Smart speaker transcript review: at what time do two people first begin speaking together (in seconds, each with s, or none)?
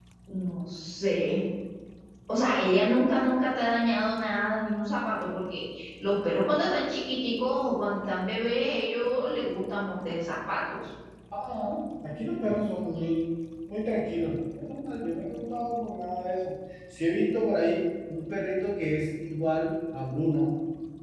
none